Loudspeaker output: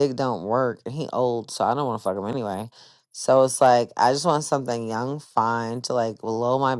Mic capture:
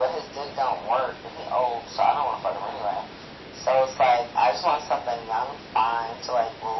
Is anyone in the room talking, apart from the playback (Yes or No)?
No